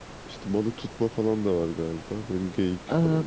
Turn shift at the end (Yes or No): Yes